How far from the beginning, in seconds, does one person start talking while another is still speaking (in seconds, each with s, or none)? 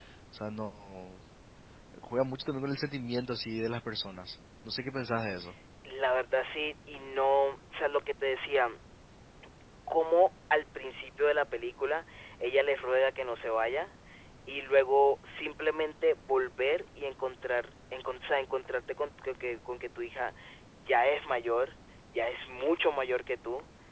none